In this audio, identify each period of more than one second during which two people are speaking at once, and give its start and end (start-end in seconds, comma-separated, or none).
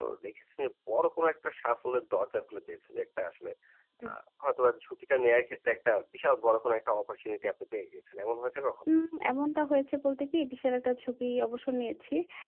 none